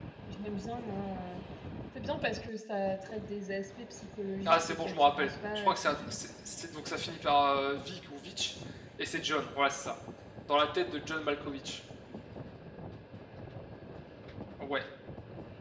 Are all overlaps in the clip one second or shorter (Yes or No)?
No